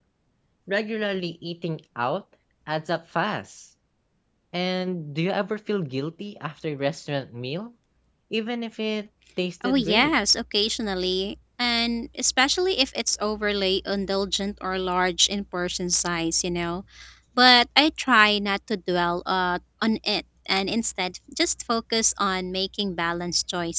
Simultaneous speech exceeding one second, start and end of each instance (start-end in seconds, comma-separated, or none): none